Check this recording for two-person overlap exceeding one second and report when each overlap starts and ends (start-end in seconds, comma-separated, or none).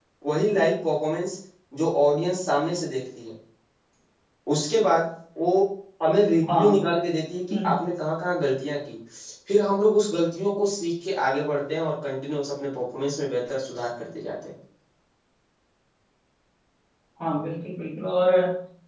none